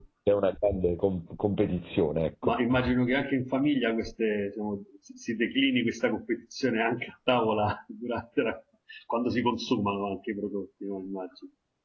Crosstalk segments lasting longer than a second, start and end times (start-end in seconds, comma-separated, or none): none